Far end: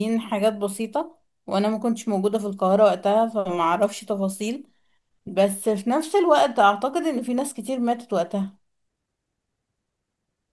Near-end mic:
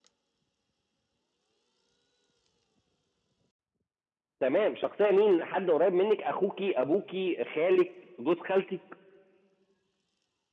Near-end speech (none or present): present